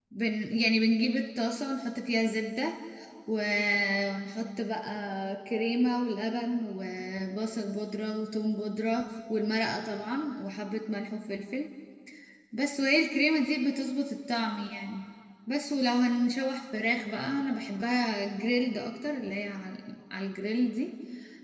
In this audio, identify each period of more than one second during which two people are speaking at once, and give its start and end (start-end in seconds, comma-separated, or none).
none